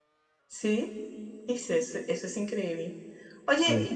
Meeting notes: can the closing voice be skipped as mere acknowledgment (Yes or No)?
Yes